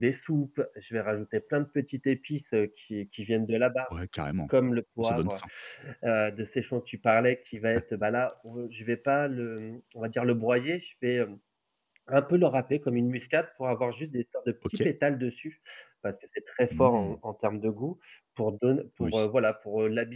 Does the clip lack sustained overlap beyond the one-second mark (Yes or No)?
Yes